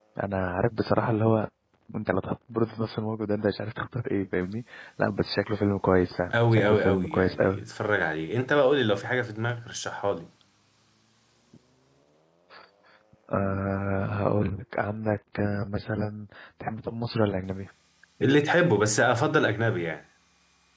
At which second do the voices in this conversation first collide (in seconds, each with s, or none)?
6.3 s